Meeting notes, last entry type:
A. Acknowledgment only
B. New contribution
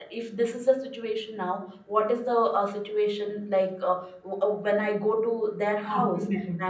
A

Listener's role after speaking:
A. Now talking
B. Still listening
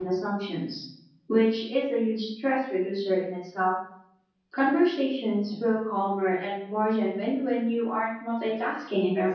A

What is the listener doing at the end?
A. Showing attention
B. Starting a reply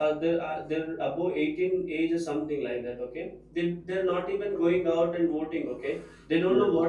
A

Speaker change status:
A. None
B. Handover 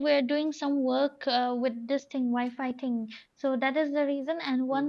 A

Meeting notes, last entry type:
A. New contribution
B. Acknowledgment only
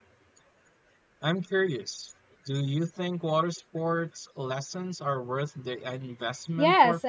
A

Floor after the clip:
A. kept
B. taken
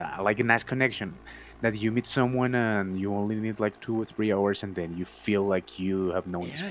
B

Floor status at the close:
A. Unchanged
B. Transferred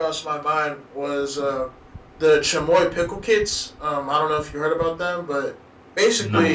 A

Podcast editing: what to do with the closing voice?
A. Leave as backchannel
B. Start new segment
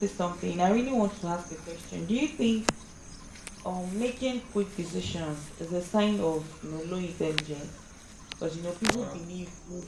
A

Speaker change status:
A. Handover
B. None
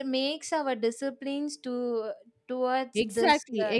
A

